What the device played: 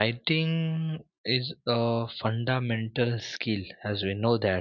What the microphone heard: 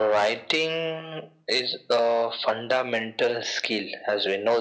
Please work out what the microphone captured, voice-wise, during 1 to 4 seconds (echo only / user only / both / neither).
echo only